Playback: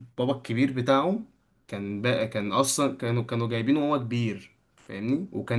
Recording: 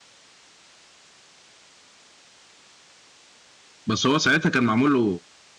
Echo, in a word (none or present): none